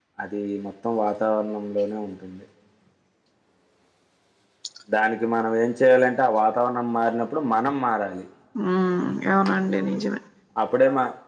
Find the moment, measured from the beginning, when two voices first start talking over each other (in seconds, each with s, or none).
none